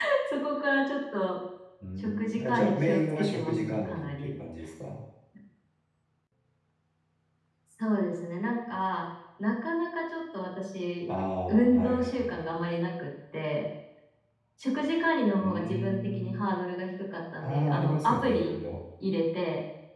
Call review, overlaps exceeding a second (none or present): present